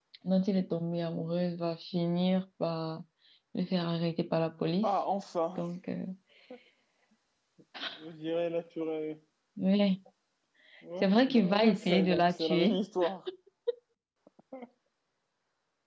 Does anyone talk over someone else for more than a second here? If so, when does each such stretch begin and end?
11.0-12.8

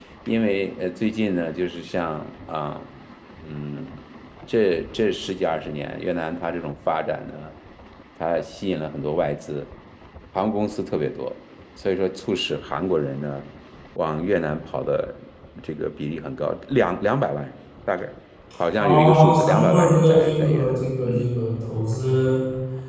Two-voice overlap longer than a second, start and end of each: 18.8-21.4

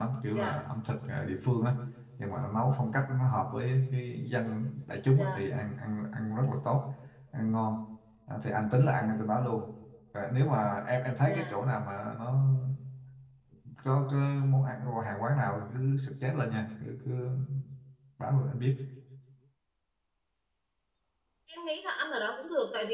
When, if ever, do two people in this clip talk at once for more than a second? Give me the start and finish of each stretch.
none

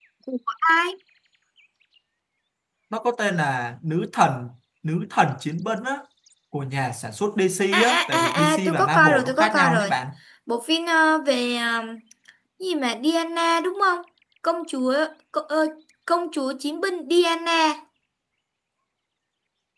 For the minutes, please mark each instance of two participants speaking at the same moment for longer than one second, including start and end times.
7.7-9.9

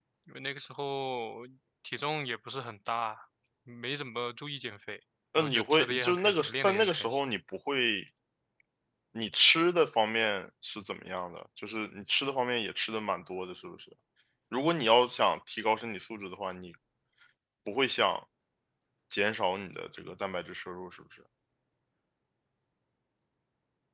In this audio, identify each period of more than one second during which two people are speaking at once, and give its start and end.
5.4-7.2

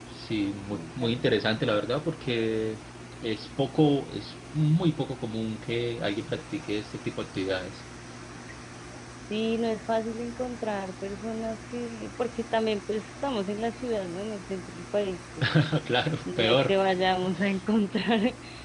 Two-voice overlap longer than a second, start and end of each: none

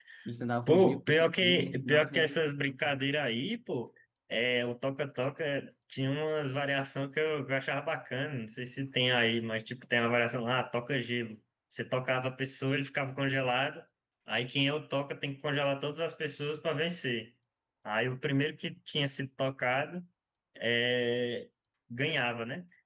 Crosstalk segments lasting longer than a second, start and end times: 0.7-2.4

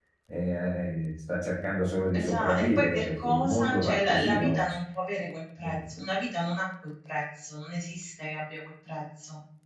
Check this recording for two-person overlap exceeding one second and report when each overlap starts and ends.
2.2-4.6

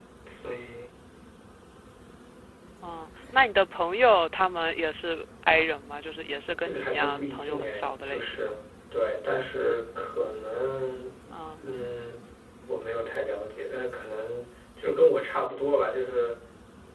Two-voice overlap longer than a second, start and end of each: 6.6-8.6

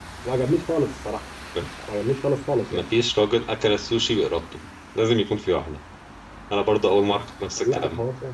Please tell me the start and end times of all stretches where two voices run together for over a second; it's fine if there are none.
none

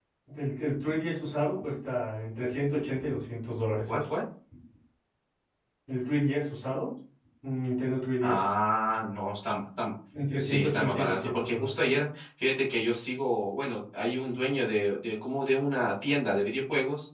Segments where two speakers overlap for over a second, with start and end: 10.4-11.9

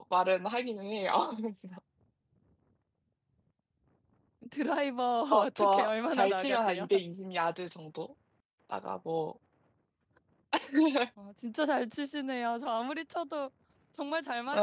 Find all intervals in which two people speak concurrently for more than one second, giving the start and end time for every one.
5.4-6.9

